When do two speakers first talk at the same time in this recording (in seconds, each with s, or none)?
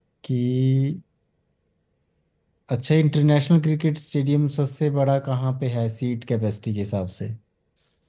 none